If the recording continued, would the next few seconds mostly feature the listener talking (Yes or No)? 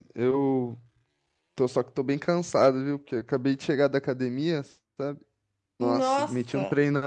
No